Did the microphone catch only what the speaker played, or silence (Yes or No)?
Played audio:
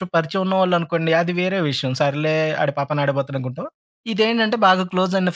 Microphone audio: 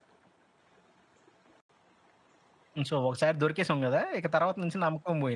No